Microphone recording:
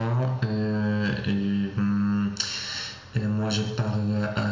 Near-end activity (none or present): none